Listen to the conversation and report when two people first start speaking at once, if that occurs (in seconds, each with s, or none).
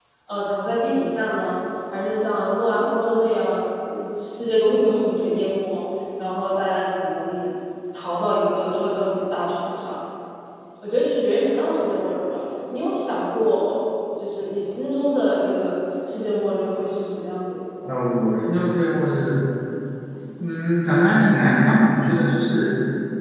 none